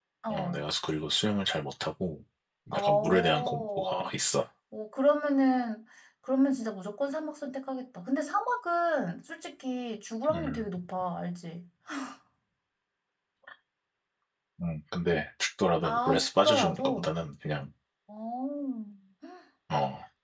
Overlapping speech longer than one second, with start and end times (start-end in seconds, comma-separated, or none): 2.7-4.1, 15.8-17.1